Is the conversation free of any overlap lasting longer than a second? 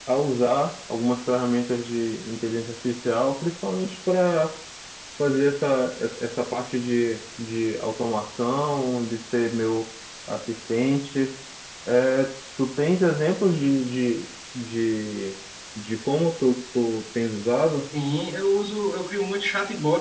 Yes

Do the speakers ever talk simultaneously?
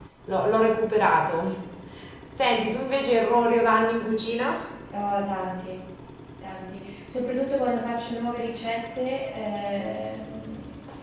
No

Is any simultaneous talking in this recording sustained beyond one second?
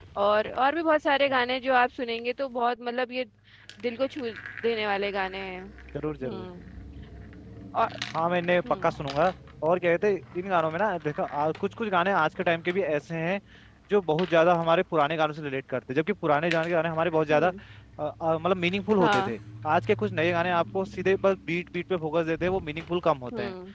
No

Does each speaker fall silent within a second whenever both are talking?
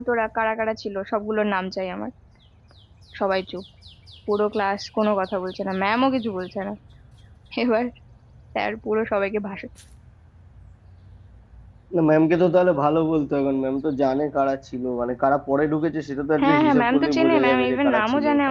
No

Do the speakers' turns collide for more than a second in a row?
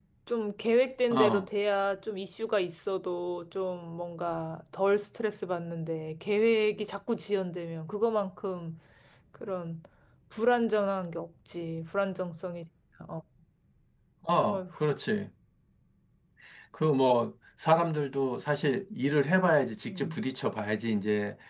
No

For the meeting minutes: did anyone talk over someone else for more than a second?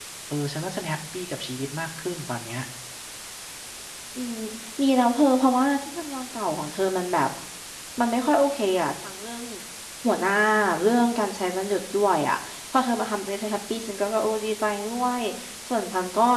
No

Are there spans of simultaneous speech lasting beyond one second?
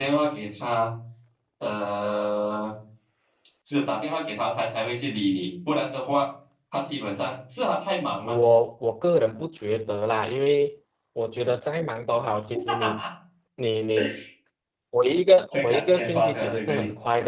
Yes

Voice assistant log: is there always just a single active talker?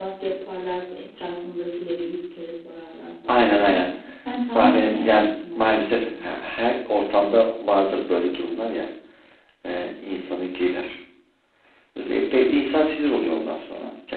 No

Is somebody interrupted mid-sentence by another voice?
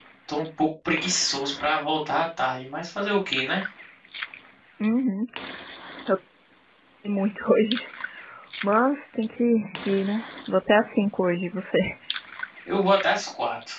No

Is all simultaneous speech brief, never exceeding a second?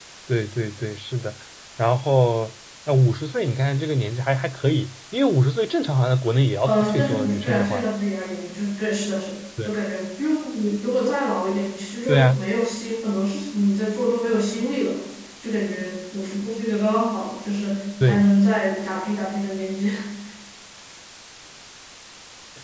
No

